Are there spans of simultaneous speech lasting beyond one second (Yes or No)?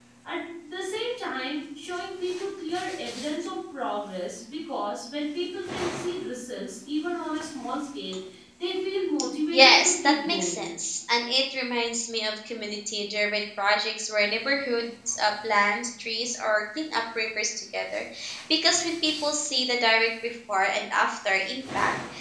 Yes